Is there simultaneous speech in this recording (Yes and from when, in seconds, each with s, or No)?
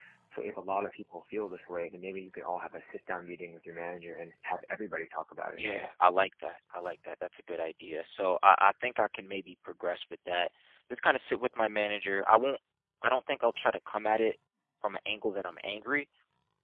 No